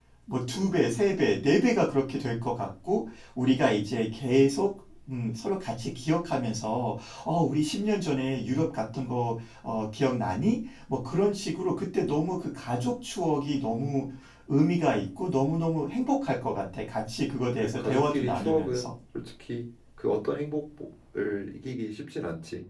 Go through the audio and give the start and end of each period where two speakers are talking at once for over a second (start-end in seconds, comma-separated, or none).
17.6-18.9